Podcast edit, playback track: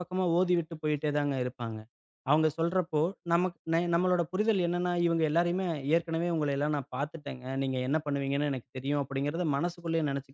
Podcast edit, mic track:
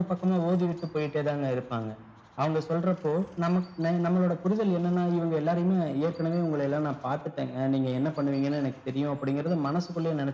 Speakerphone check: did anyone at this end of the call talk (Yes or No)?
No